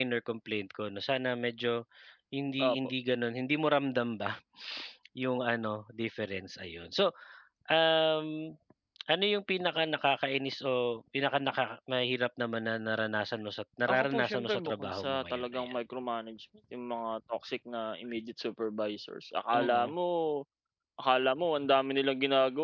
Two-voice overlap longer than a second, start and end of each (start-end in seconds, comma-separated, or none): 13.9-15.7